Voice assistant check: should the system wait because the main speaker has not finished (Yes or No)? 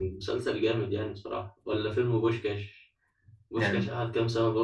Yes